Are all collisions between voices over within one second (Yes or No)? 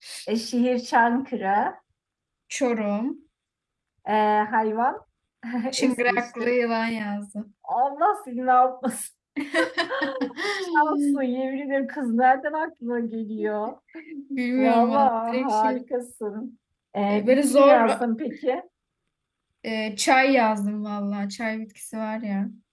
No